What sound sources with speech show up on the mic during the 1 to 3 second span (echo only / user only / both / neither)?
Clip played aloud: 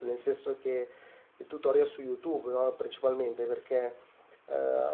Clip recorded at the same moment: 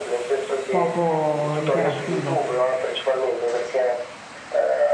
both